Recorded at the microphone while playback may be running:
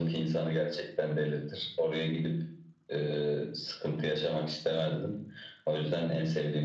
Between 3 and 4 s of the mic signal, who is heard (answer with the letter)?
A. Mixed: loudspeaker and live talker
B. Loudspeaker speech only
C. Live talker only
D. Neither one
B